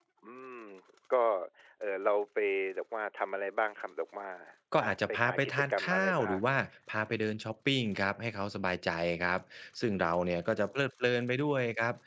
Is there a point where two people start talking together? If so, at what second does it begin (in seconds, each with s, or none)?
4.8 s